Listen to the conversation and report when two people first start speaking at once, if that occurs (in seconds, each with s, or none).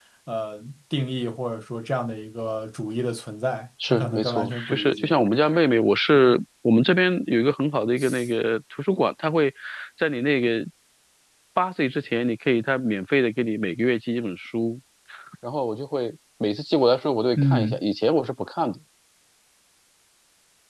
3.9 s